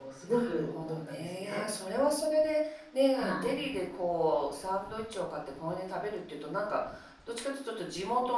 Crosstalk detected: Yes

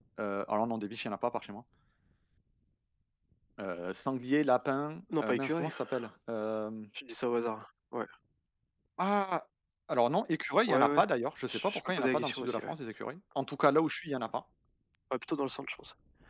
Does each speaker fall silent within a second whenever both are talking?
No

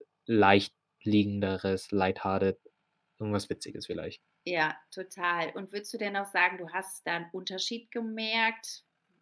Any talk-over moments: No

